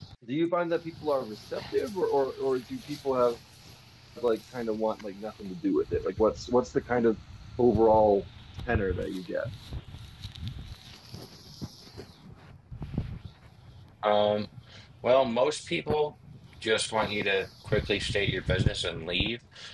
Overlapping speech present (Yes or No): No